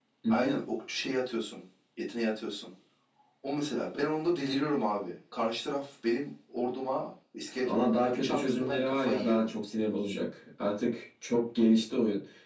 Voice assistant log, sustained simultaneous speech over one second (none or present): present